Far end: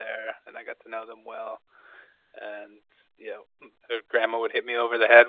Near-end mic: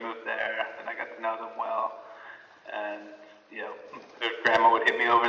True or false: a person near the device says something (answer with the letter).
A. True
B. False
B